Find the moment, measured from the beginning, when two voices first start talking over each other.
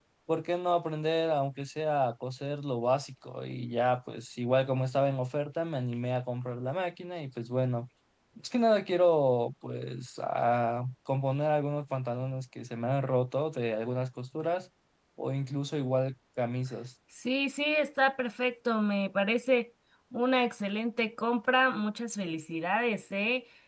none

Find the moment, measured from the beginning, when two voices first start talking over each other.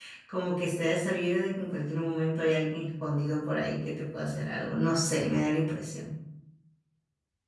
none

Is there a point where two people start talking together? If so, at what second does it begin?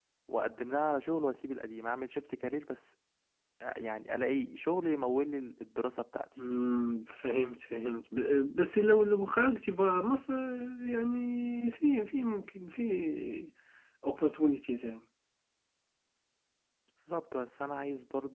none

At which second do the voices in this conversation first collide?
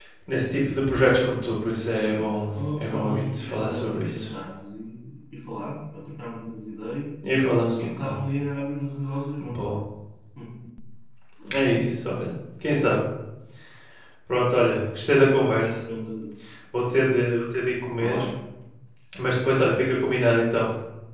2.6 s

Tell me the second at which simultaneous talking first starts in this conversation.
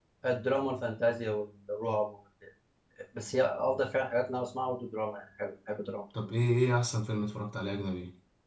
none

